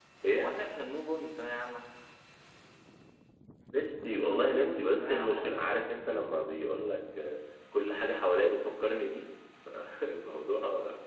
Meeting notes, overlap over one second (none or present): present